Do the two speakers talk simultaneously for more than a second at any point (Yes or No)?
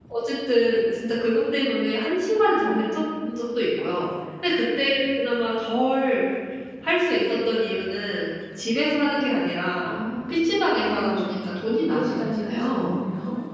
Yes